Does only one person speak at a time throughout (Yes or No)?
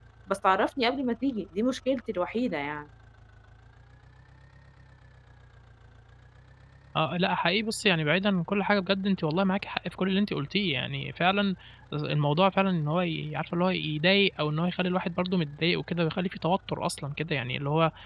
Yes